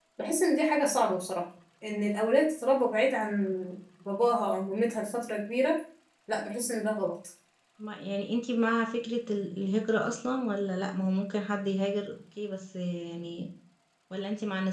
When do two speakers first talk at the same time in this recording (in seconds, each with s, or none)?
none